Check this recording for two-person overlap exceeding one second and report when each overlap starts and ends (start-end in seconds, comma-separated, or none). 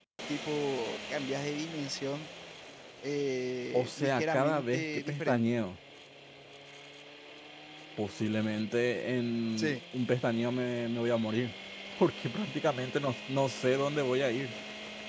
3.7-5.5